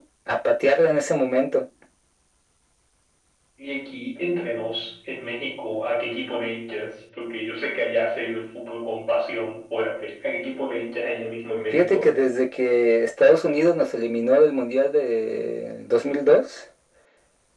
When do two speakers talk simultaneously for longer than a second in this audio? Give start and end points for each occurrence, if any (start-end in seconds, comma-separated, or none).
none